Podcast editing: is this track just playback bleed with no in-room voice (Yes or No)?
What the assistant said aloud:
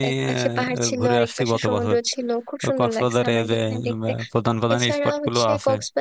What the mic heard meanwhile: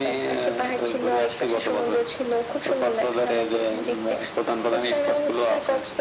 Yes